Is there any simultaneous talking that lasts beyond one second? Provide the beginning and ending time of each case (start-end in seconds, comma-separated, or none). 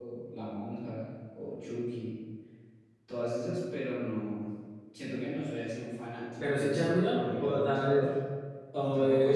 6.4-8.1